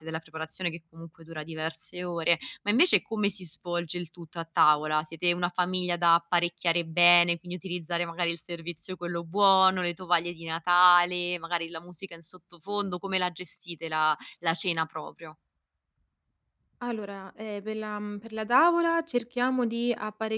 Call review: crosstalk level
none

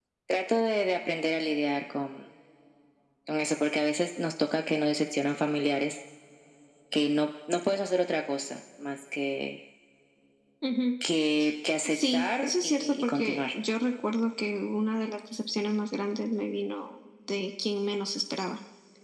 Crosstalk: present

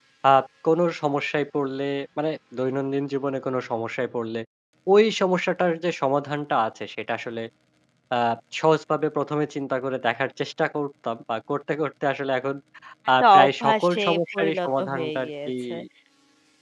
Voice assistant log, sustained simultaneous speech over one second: present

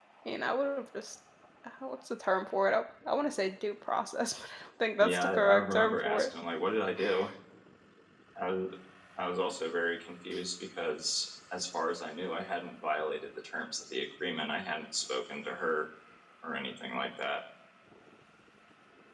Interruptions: present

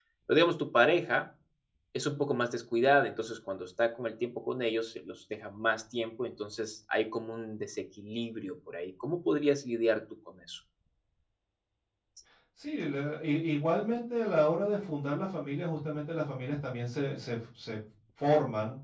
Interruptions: none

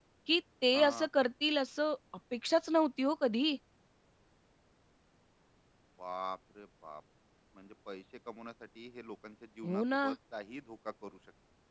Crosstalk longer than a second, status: none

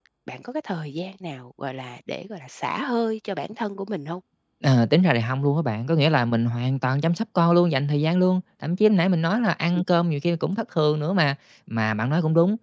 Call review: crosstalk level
none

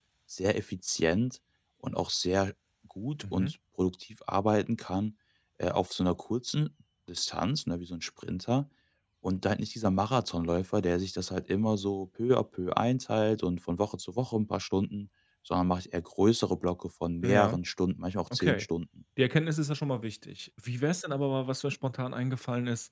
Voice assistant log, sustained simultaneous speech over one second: none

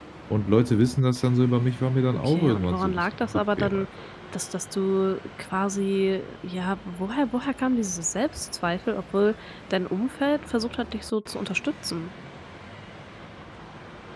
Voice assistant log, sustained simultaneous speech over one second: present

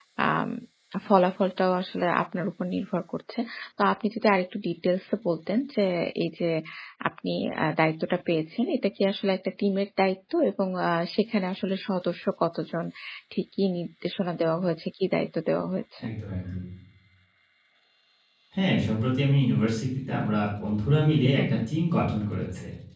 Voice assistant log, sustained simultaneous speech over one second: none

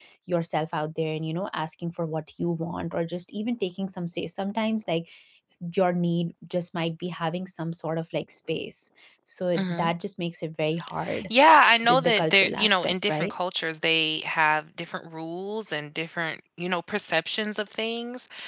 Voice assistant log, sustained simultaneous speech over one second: present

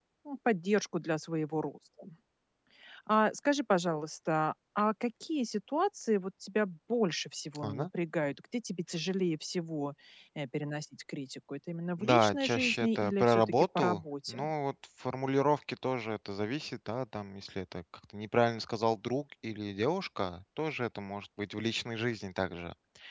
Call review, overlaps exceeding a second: present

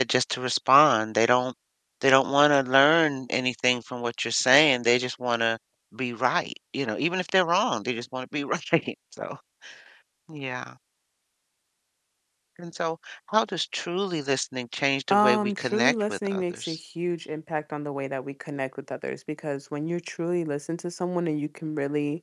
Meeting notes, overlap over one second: present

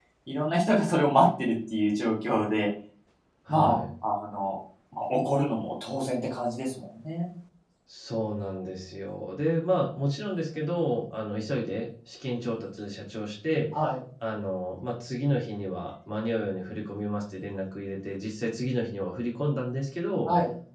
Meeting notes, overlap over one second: none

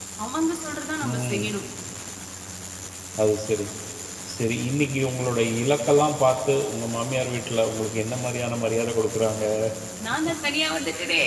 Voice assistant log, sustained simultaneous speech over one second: none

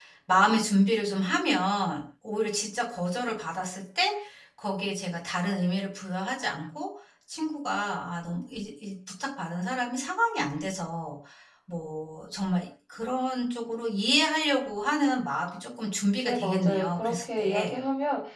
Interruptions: present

